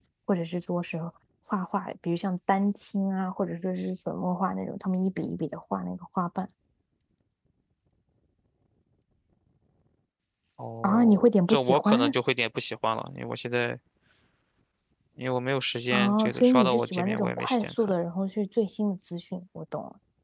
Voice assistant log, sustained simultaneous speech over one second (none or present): present